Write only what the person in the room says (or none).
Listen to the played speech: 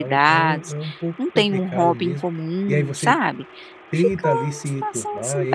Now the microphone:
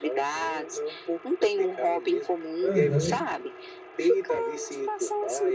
Aham.